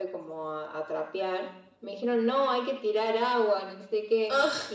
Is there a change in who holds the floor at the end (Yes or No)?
No